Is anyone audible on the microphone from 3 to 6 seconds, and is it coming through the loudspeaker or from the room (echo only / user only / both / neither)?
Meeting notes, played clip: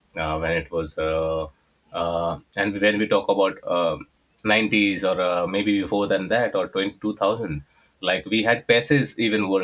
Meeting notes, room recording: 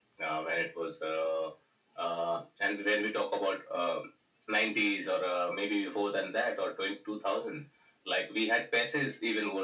echo only